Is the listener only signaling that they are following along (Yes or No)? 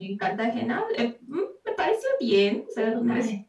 No